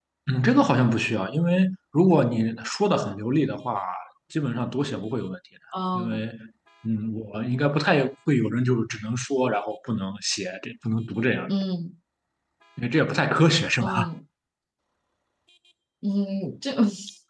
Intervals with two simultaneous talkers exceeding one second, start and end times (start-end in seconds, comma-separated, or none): none